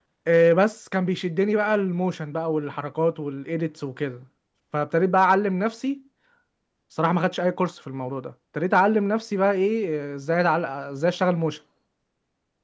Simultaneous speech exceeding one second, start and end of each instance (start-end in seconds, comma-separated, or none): none